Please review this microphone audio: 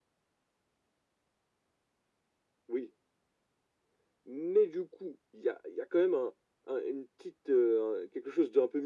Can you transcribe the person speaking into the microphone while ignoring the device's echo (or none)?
none